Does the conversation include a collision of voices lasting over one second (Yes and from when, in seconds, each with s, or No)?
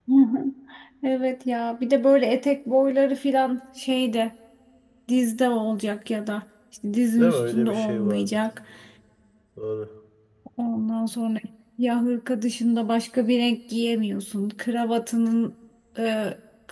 Yes, from 7.2 s